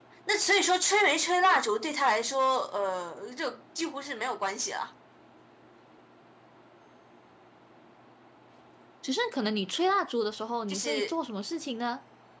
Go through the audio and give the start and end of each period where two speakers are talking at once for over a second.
none

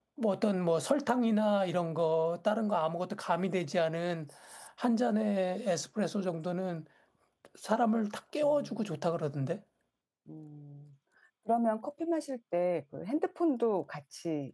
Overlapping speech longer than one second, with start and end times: none

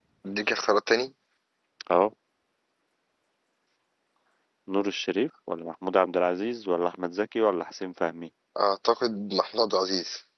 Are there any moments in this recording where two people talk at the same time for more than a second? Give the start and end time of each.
none

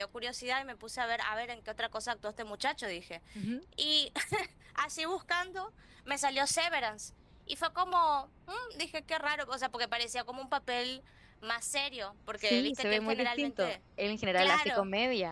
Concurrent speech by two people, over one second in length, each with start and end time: 12.4-13.8

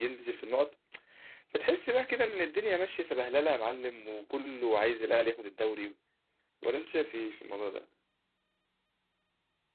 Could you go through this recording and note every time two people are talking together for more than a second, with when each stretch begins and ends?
none

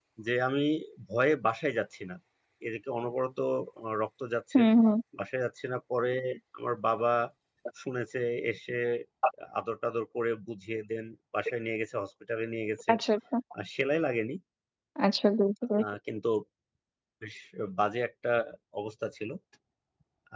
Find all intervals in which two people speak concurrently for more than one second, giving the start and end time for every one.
none

